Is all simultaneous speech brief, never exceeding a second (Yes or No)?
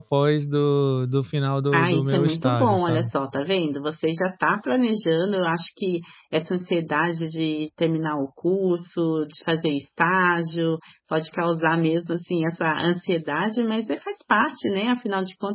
No